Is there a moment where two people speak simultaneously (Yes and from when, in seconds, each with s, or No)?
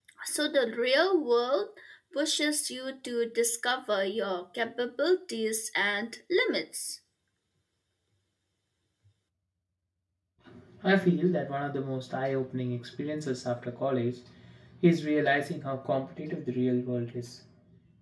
No